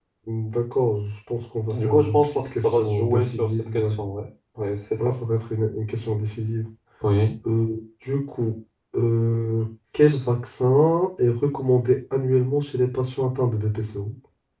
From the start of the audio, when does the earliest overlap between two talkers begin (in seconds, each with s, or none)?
1.7 s